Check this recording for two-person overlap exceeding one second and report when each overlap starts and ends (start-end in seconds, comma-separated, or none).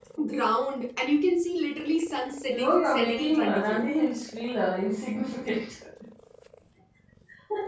2.5-3.9